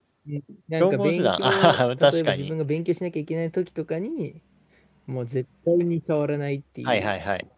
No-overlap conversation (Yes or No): No